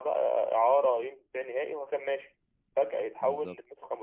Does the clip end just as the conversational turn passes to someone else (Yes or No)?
No